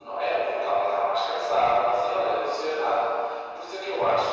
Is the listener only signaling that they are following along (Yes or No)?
Yes